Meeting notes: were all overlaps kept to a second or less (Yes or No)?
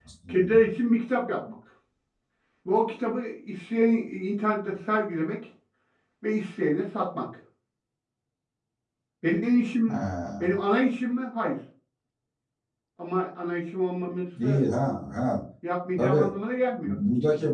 Yes